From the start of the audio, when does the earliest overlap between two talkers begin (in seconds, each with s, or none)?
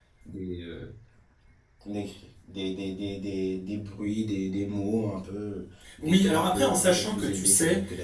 5.8 s